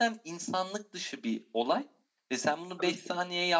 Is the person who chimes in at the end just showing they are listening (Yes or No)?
Yes